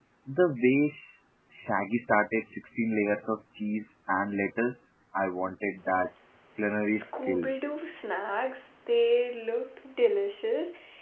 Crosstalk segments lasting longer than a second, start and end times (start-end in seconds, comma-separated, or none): none